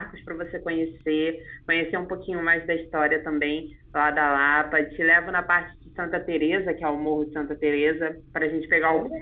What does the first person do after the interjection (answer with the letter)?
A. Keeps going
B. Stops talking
B